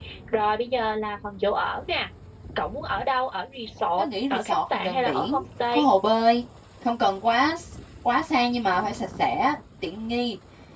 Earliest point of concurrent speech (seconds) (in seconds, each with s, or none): 4.0 s